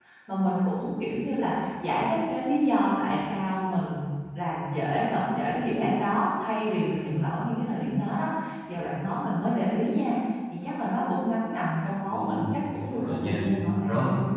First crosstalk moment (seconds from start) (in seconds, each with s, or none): 12.1 s